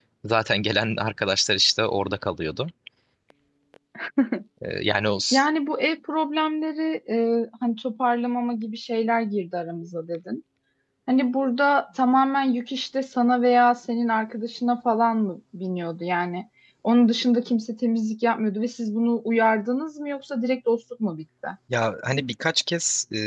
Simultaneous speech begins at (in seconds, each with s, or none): none